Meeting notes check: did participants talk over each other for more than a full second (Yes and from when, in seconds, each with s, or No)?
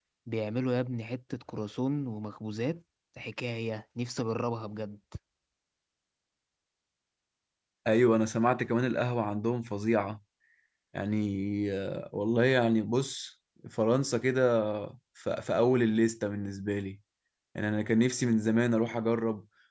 No